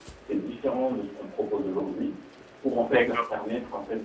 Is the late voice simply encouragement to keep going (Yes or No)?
Yes